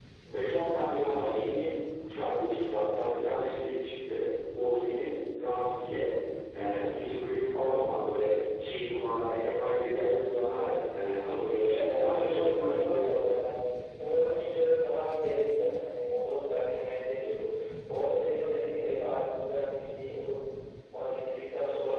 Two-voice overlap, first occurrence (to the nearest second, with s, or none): 12 s